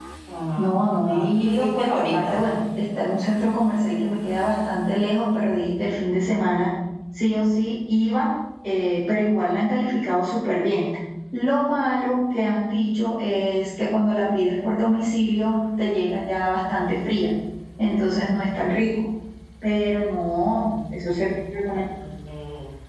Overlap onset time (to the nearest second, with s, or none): 1 s